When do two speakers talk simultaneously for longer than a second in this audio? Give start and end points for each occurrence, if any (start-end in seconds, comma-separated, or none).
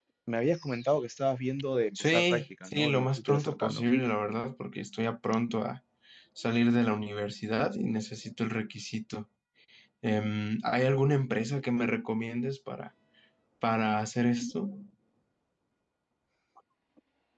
2.0-3.8